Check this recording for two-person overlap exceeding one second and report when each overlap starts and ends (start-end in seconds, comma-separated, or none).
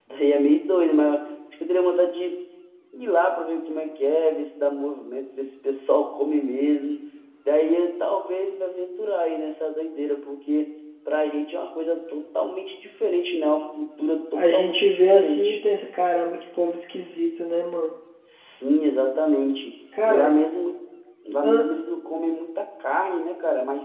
14.3-15.6